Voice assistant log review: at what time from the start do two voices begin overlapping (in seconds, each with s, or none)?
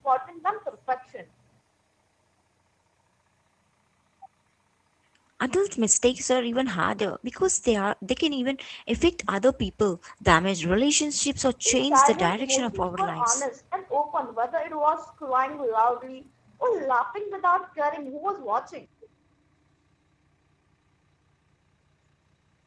11.7 s